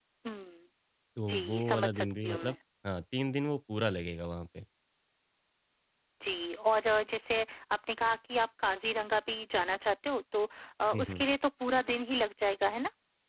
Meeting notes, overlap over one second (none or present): present